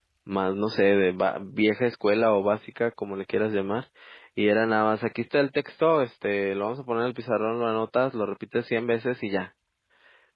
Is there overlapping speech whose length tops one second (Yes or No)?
No